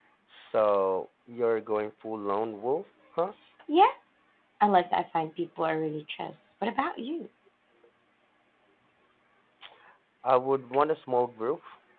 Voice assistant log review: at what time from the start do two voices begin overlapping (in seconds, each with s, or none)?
none